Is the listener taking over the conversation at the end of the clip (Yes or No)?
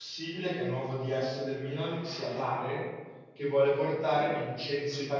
No